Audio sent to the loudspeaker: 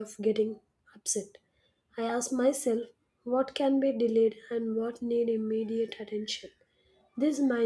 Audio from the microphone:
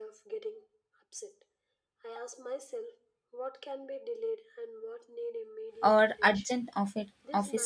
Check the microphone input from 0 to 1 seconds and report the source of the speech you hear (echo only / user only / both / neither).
echo only